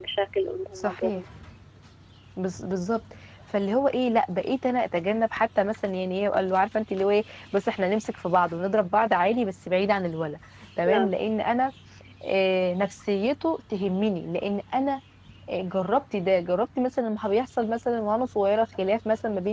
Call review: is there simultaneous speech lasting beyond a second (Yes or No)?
No